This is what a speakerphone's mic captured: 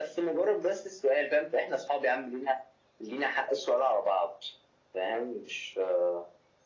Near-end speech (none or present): none